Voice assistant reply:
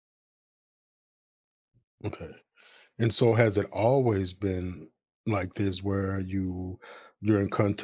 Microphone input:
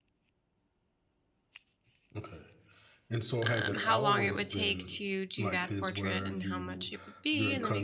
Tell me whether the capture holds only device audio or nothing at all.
No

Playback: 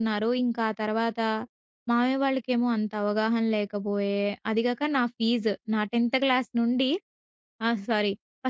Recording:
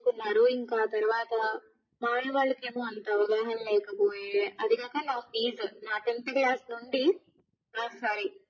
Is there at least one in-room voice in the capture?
No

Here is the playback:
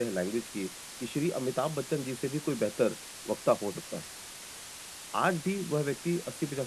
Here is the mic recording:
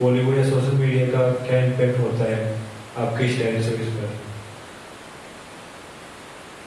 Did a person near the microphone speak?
Yes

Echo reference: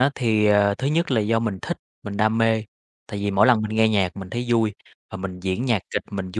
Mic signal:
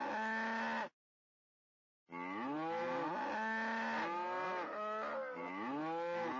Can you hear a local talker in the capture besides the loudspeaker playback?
No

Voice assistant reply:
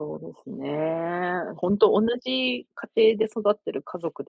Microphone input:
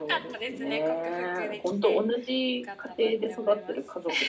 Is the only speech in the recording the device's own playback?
No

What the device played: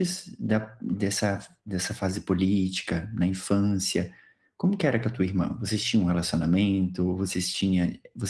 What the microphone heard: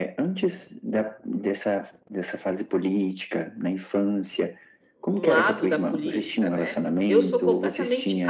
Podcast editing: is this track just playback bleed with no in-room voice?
No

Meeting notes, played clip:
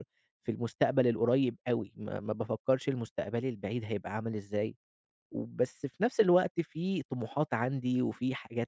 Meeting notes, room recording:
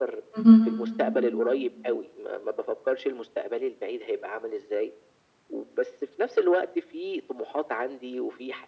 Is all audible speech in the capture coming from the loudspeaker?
No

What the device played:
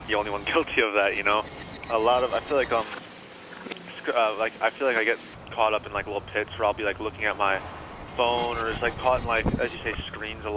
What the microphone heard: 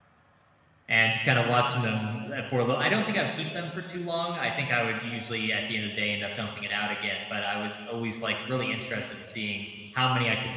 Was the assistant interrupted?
Yes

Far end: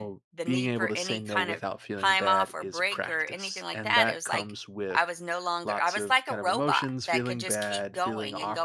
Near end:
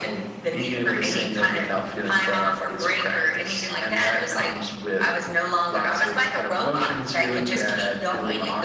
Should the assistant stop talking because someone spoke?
No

